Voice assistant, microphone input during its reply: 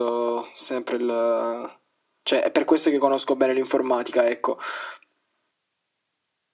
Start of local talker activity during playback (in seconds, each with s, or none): none